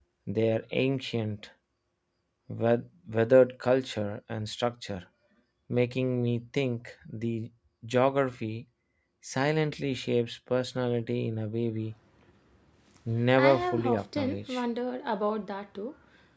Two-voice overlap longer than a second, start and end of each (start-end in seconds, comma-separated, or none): 13.4-14.6